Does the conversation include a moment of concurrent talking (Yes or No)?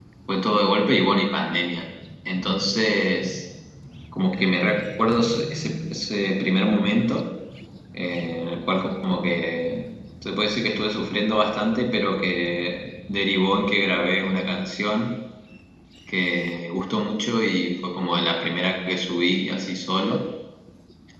No